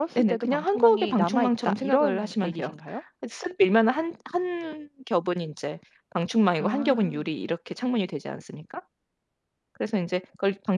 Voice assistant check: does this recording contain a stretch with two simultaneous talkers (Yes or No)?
Yes